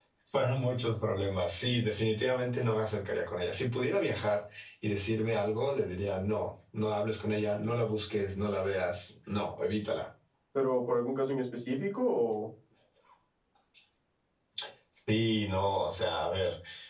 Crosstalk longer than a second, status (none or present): none